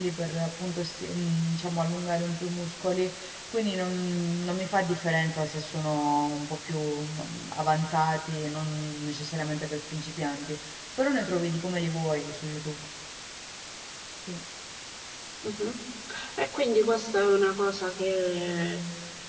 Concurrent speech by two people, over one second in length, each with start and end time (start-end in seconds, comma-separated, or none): none